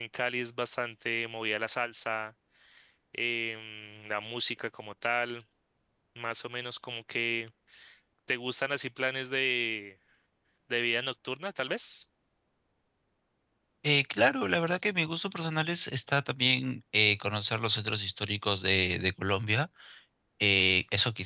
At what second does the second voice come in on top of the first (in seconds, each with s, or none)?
none